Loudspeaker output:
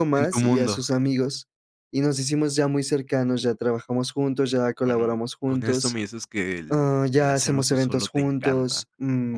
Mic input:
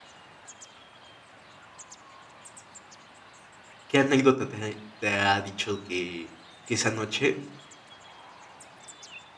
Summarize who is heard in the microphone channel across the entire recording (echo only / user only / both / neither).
user only